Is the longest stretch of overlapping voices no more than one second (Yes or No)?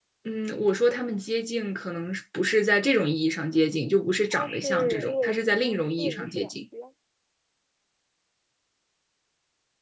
No